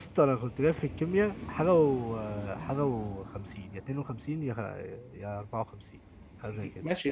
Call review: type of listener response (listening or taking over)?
taking over